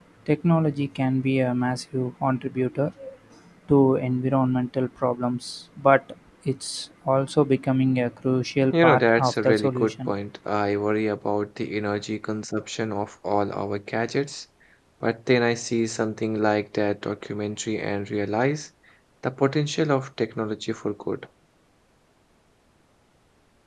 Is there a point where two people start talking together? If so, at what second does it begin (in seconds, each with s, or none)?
8.7 s